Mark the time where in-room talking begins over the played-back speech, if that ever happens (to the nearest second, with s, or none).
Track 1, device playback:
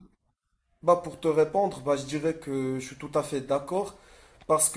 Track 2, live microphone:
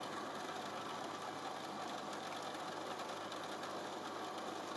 none